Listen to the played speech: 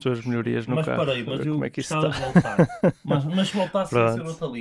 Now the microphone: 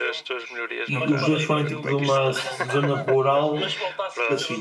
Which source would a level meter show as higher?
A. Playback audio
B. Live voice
B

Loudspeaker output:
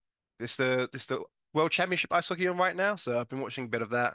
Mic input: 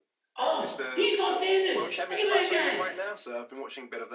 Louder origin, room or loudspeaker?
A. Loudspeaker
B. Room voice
B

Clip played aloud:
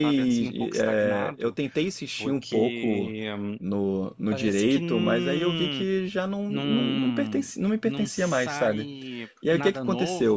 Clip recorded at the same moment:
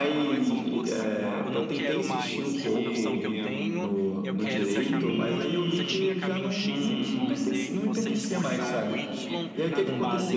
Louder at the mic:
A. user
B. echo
B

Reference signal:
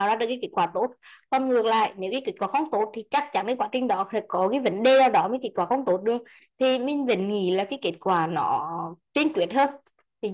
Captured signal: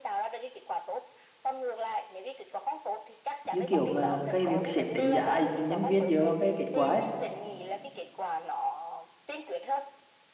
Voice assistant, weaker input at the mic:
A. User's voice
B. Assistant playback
B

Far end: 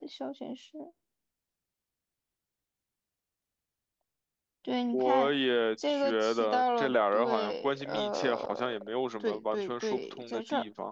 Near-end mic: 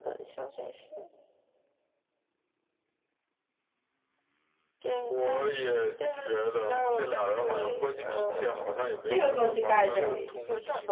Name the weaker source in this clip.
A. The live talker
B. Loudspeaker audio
B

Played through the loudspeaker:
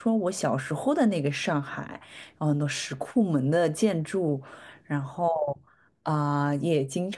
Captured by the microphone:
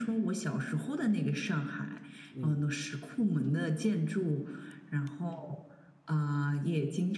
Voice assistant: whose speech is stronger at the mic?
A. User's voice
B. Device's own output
B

